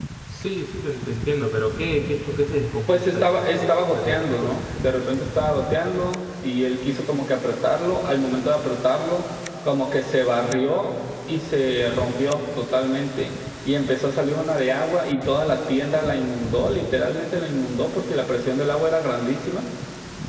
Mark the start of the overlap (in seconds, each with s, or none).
2.9 s